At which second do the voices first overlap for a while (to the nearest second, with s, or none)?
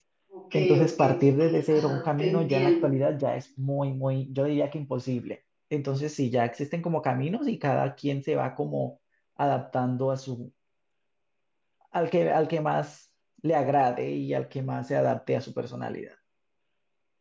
1 s